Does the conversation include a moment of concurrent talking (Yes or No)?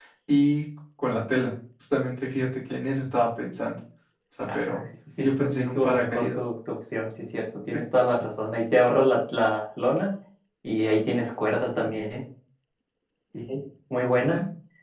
Yes